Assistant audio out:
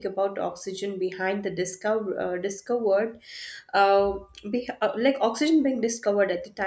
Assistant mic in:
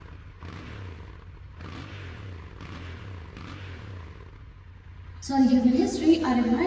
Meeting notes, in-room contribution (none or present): present